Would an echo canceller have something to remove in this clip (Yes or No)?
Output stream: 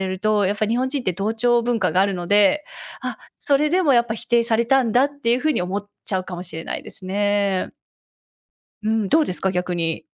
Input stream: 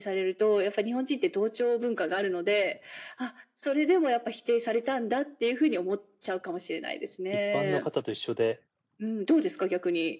Yes